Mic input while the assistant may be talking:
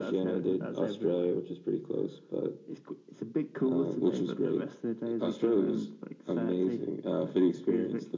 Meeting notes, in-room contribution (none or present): none